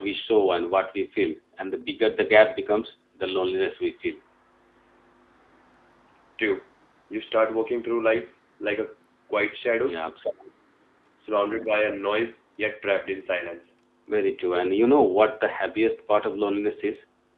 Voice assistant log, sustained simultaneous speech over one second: none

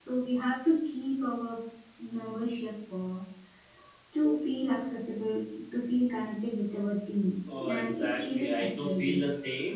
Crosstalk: present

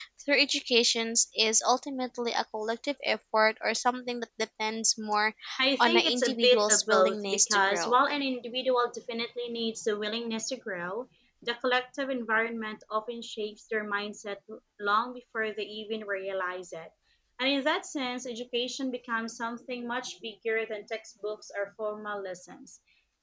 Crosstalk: present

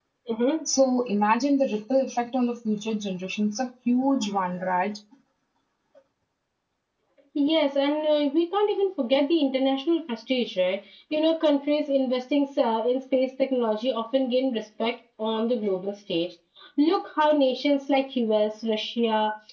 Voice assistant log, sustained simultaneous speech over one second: none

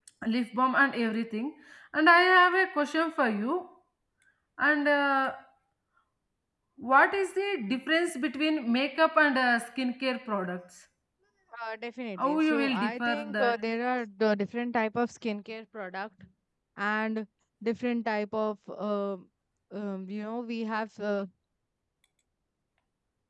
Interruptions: present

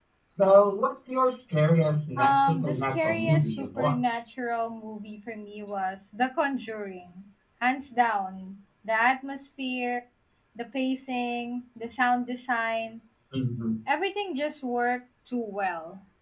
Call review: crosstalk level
present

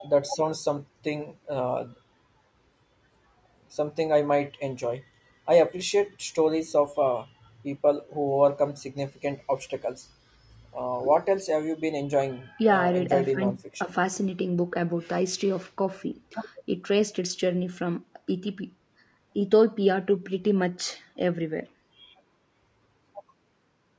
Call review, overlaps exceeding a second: present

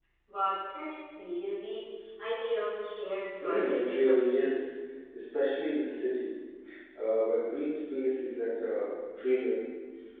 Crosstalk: present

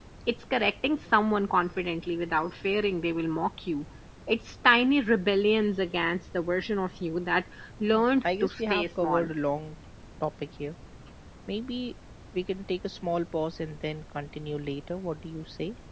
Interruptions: present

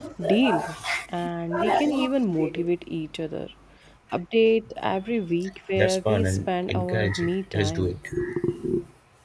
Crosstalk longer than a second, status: present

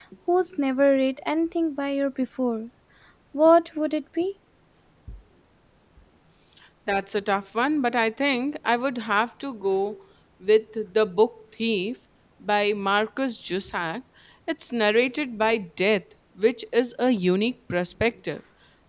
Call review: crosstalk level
none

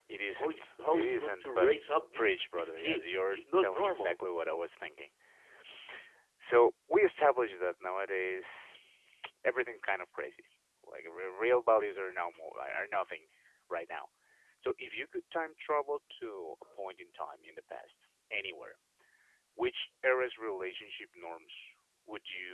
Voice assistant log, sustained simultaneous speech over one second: present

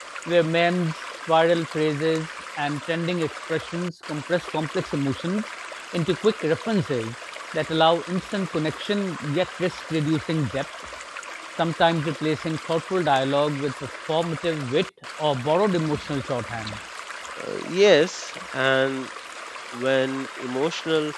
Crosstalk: none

